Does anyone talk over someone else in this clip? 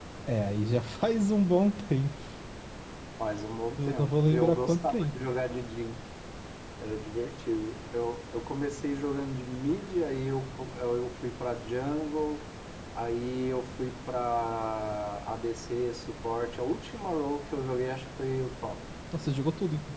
Yes, from 3.8 s

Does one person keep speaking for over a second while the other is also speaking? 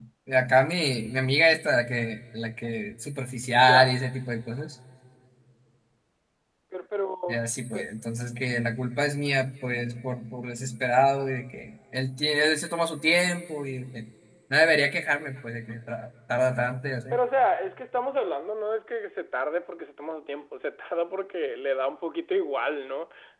No

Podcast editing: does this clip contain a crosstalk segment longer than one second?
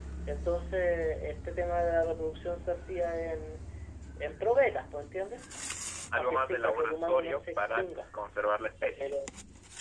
Yes, from 6.2 s

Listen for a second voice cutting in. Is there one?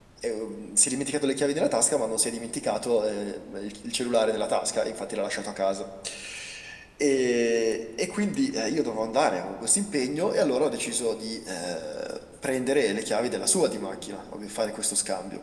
No

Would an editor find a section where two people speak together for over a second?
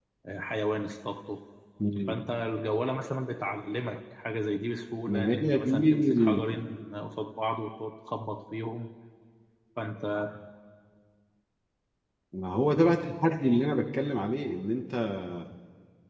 Yes, from 5.1 s

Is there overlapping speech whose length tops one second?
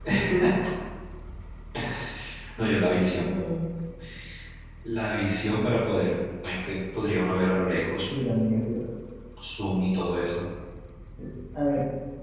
No

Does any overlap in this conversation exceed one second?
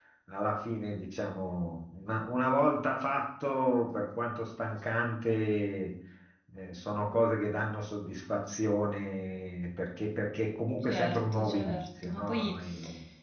Yes, from 10.8 s

